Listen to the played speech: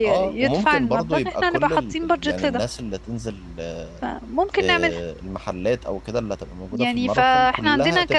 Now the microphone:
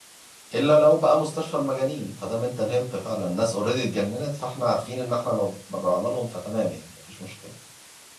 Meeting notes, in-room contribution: present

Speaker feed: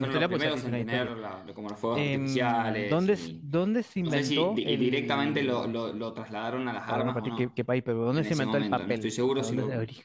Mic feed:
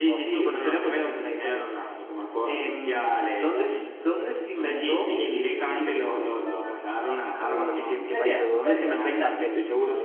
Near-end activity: present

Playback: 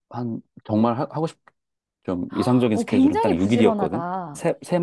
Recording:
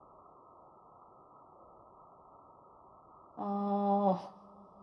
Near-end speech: present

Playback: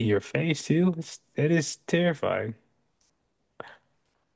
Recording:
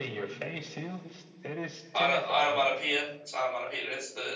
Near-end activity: present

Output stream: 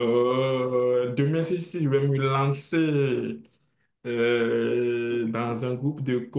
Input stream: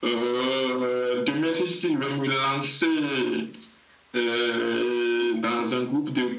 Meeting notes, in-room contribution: none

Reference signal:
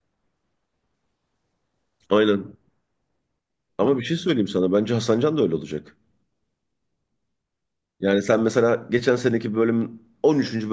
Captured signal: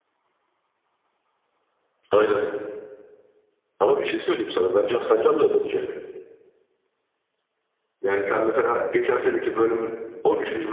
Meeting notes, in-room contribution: none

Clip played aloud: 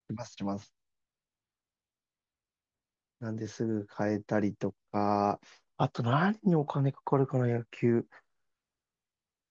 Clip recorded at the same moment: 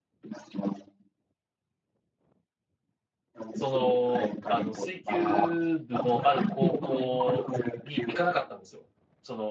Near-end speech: present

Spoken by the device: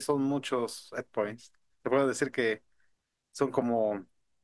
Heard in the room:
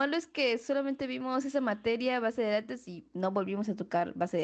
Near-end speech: present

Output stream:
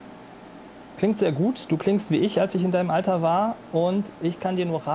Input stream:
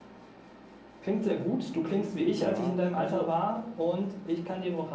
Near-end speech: present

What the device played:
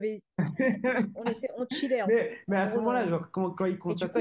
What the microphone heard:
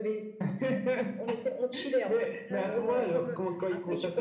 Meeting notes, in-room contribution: present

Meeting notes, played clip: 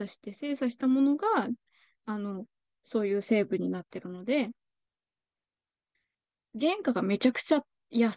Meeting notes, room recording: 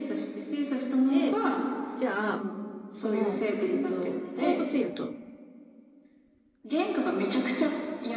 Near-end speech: present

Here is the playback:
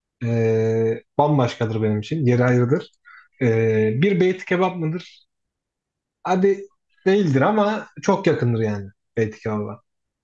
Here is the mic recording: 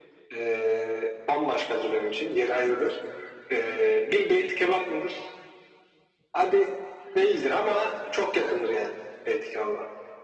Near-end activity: none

